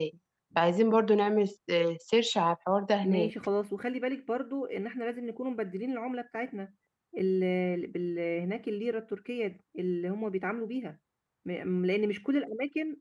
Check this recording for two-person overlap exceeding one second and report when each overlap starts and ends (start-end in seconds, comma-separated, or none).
none